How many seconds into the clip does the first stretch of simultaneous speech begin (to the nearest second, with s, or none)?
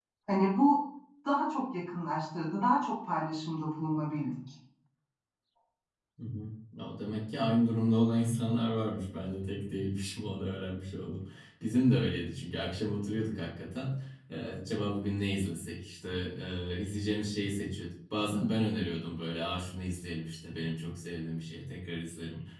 none